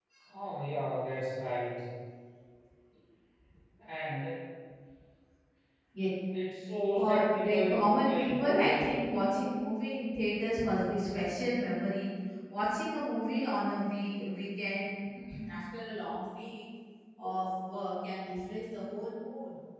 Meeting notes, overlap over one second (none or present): present